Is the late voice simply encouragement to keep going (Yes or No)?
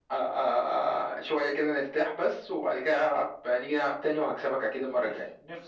No